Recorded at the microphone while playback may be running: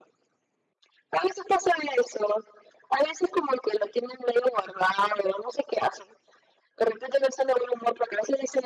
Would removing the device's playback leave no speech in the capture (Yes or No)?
Yes